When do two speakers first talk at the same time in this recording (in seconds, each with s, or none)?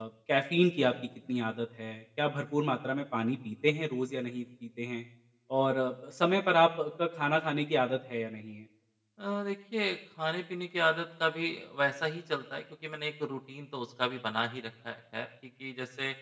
none